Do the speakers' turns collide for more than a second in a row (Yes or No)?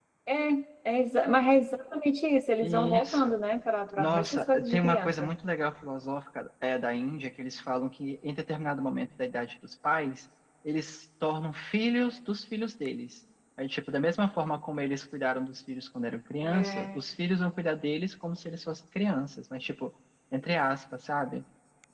Yes